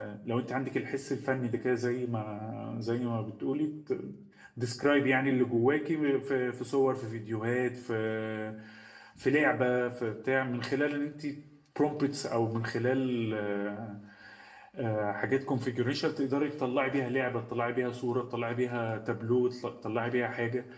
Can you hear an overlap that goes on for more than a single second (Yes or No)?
No